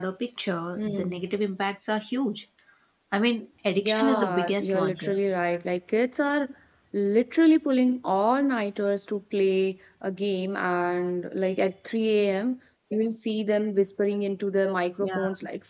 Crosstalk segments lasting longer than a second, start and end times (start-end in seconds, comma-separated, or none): 3.7-5.2